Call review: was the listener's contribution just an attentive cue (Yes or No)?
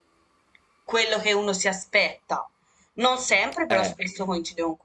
Yes